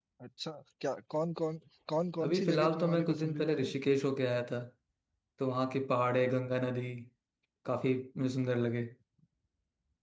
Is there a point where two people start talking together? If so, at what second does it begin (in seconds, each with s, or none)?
2.2 s